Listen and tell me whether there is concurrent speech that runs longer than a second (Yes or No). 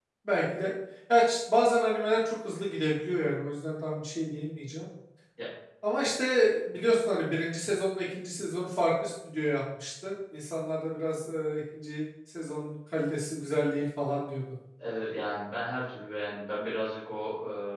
No